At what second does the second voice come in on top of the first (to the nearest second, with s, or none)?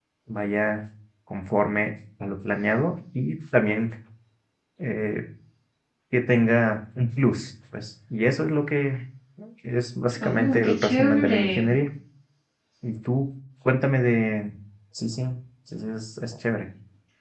10 s